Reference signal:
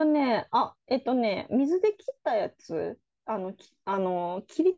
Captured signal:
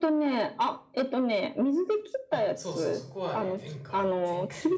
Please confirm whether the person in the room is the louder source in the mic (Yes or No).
No